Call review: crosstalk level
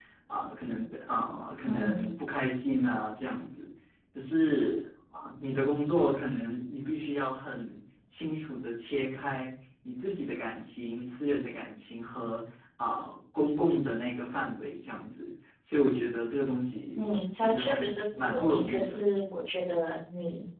present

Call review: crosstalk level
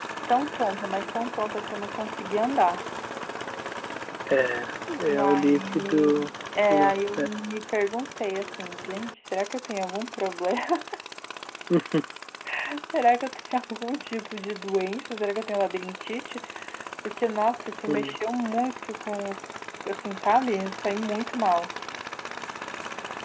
present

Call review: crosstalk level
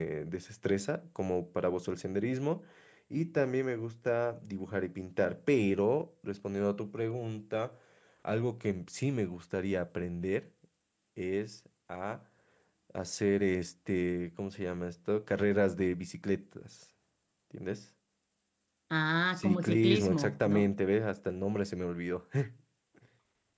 present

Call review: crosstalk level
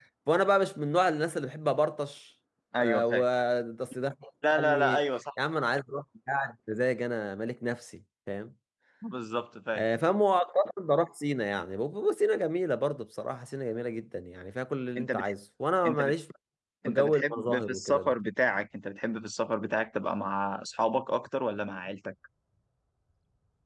present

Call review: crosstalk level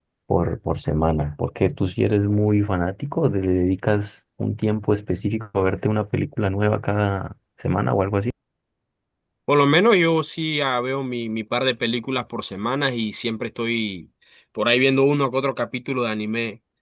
none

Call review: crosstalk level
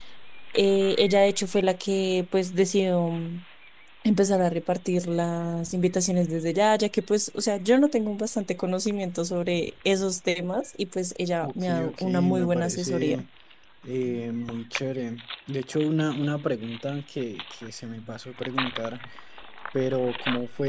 present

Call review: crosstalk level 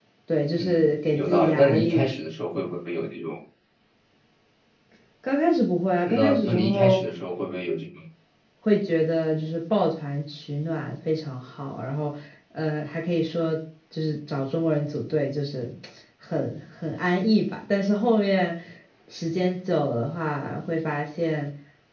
present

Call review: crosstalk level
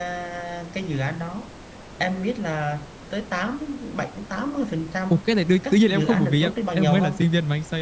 present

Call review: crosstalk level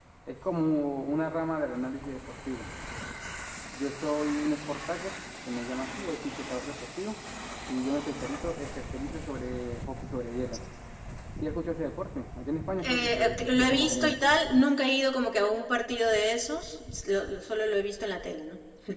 present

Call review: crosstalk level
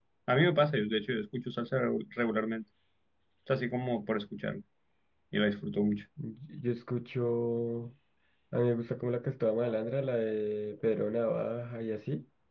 none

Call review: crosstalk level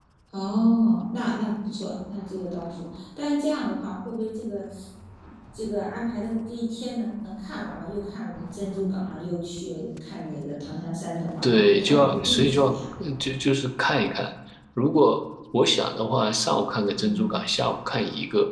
present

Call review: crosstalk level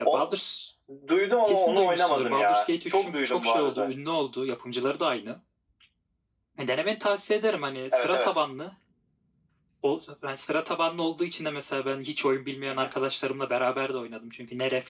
present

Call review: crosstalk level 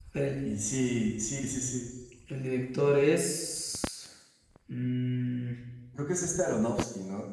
none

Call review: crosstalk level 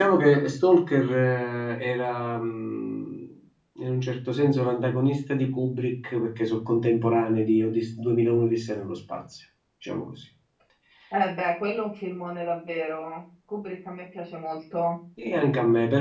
none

